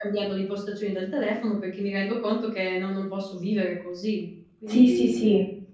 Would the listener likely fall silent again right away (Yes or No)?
No